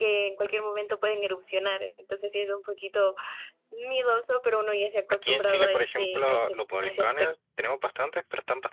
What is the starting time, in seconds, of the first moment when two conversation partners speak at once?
5.1 s

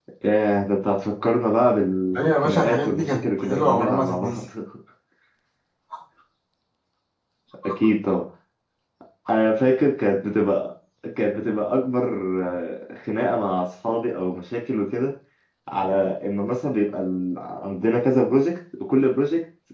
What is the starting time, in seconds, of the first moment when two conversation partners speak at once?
2.2 s

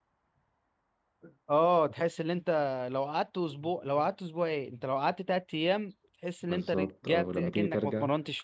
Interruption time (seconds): 6.5 s

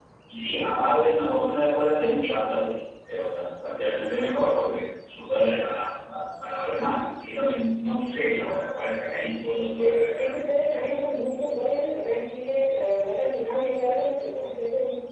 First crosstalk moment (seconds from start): 9.3 s

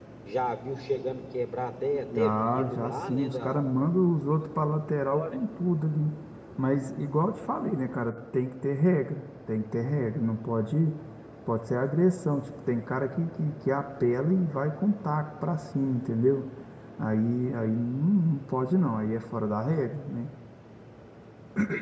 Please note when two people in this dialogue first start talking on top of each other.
2.1 s

